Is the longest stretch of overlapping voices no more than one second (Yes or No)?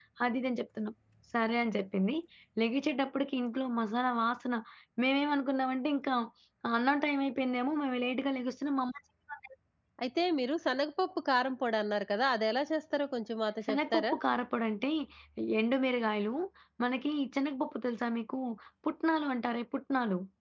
Yes